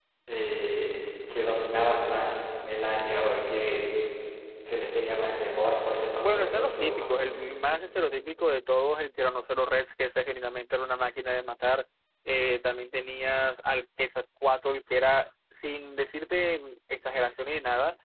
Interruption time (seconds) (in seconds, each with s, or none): 6.2 s